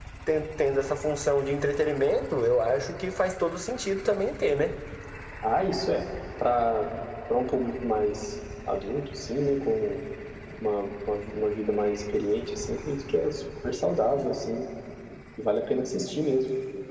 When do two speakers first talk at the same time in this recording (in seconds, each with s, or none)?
none